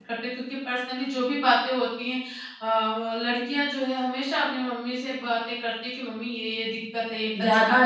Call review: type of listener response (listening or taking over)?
taking over